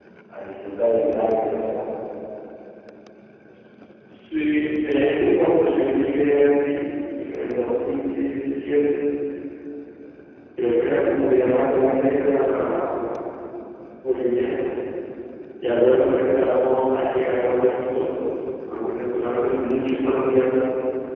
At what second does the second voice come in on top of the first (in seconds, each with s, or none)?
none